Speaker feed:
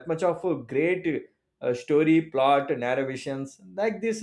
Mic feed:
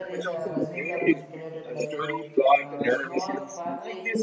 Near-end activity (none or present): present